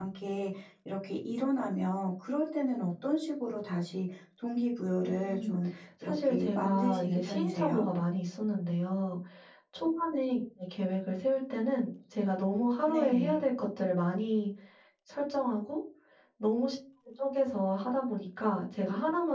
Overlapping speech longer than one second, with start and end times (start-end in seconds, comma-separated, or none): 6.0-7.8